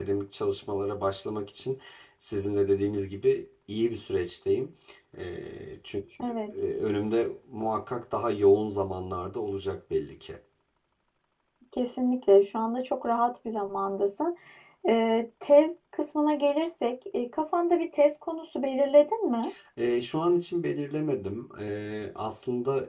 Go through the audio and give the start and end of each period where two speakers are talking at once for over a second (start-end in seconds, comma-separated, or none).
none